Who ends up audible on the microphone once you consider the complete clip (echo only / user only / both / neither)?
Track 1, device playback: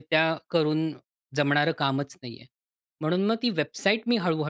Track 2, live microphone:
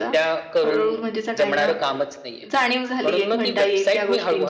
both